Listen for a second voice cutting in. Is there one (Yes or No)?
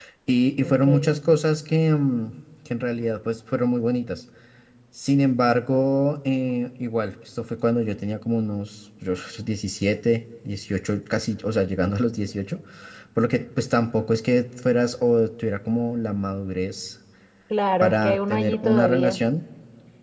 Yes